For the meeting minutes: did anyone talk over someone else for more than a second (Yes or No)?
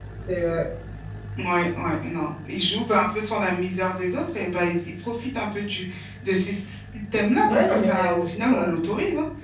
Yes